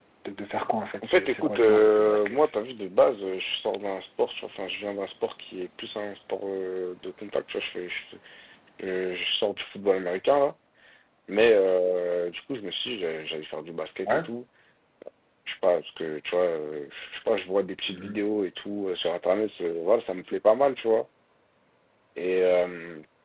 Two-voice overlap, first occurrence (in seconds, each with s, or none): 1.0 s